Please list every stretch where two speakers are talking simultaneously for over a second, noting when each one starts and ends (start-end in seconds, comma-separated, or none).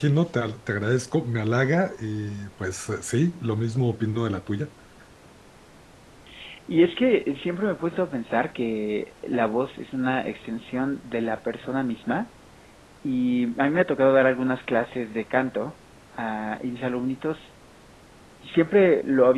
none